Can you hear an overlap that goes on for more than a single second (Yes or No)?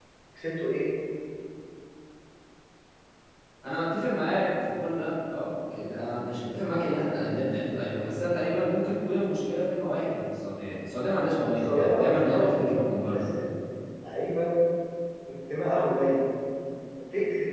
Yes